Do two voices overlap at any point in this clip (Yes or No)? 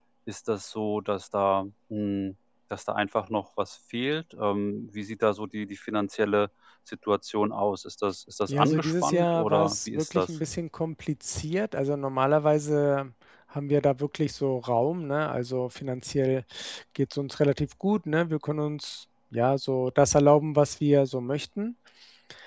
Yes